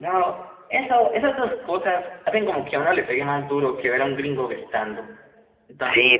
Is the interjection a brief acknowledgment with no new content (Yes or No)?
No